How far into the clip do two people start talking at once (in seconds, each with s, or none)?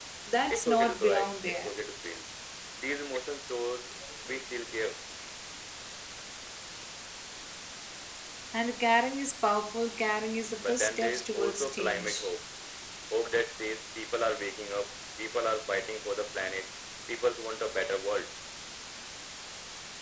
0.5 s